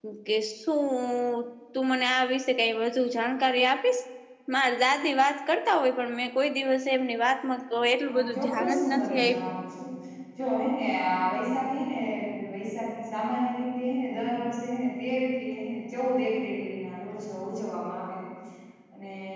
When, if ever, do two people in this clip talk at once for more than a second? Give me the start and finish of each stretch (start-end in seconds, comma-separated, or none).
8.1-9.5